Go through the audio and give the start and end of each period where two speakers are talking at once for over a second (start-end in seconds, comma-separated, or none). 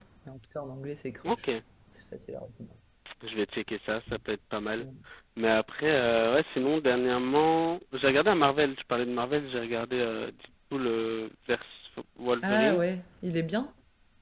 none